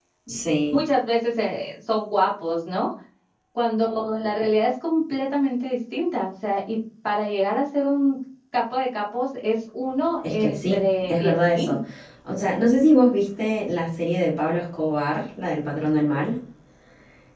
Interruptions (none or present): present